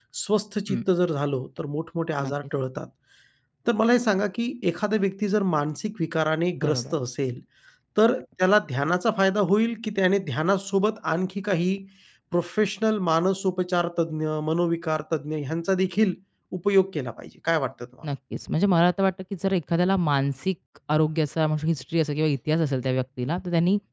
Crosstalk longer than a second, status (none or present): none